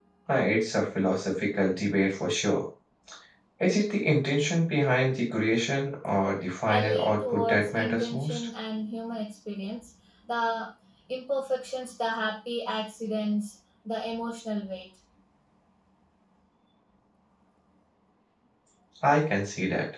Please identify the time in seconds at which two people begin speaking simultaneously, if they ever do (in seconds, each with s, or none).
6.7 s